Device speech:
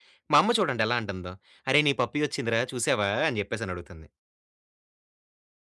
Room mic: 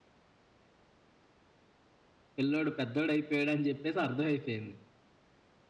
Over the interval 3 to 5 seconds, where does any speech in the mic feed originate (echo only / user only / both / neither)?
user only